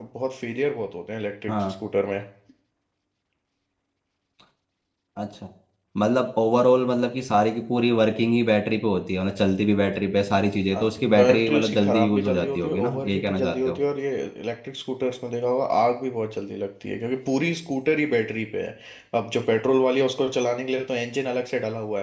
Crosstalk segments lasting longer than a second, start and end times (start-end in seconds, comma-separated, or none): 10.7-13.8